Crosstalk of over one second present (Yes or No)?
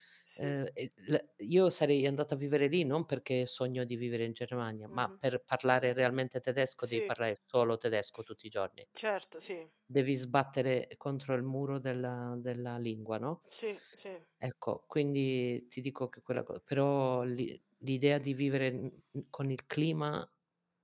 No